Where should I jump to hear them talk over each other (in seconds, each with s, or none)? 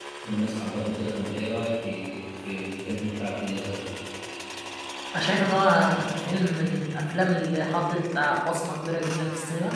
none